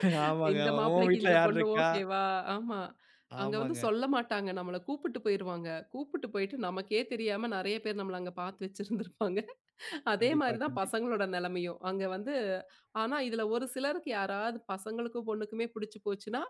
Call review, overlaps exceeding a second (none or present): present